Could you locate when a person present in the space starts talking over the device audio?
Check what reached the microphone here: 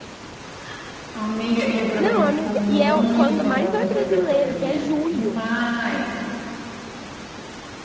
2.0 s

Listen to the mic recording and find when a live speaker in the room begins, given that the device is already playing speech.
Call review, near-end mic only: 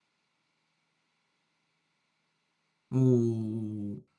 2.9 s

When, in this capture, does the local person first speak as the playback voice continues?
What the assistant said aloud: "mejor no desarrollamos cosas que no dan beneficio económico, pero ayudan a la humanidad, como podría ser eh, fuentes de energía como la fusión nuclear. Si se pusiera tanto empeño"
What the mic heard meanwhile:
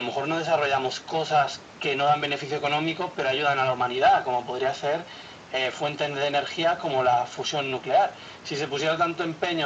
none

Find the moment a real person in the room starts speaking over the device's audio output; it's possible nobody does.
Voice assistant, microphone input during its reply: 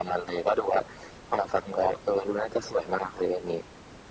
none

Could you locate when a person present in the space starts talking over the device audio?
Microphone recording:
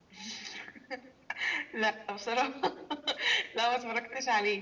none

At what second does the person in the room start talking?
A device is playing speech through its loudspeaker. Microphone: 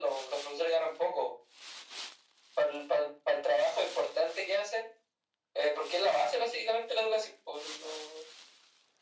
none

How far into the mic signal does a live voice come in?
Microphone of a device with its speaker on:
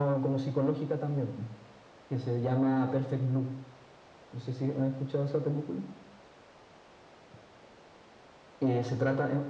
none

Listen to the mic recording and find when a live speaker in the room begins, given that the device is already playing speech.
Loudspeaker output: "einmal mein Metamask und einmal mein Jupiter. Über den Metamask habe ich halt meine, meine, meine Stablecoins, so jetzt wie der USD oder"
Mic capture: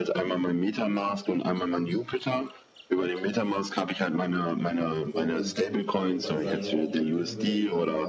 5.1 s

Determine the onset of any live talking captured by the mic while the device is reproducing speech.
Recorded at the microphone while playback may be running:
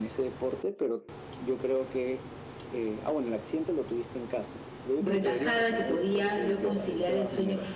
5.0 s

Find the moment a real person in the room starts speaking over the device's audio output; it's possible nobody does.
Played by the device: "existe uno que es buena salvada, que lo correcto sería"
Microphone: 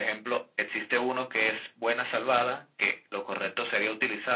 none

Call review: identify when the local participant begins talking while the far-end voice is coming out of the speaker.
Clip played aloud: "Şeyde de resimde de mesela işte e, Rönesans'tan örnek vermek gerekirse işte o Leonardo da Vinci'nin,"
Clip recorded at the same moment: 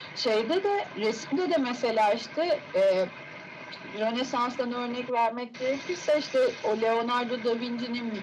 none

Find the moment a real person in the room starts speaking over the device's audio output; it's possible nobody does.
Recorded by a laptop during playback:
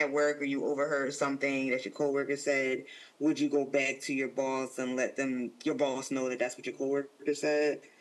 none

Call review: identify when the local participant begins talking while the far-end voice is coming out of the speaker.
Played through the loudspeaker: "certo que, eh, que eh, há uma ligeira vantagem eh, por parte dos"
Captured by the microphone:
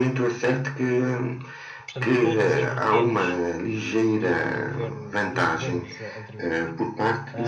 1.9 s

